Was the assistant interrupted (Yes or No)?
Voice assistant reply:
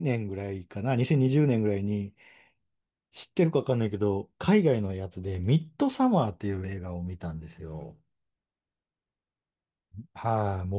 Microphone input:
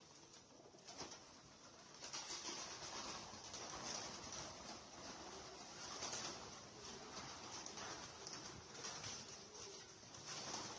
No